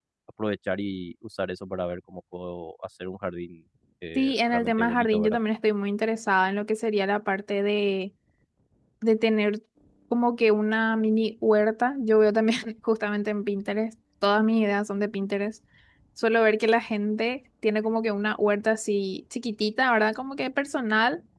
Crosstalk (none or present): present